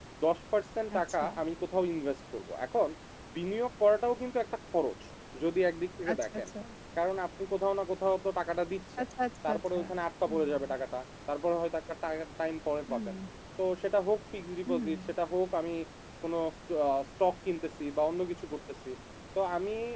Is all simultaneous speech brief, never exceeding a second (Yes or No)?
Yes